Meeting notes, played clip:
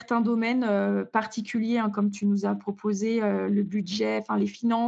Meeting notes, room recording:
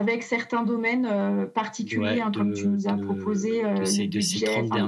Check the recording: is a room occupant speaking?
Yes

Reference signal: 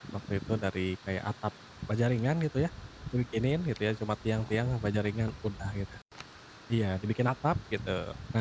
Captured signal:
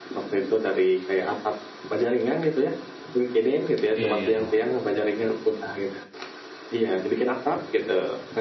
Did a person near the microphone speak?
Yes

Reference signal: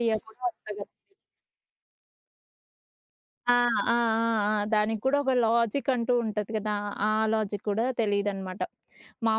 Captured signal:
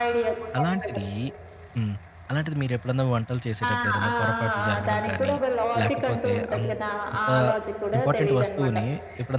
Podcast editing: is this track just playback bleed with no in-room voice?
No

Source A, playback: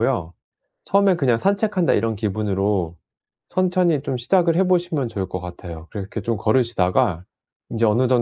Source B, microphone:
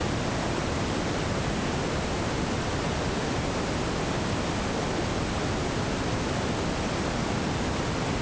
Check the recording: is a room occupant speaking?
No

